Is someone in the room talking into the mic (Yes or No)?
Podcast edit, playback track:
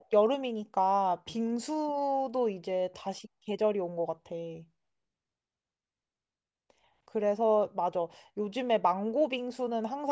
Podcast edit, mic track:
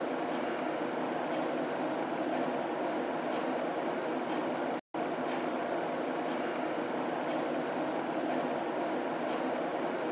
No